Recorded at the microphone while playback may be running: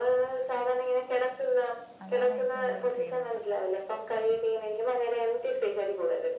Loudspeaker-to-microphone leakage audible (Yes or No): Yes